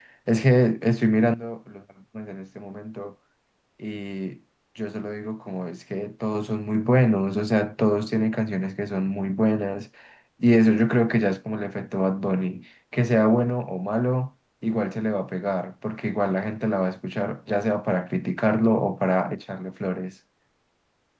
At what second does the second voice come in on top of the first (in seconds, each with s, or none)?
none